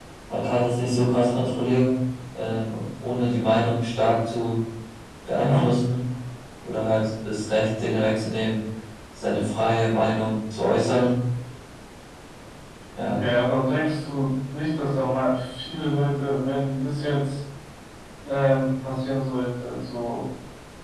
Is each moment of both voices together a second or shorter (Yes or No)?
Yes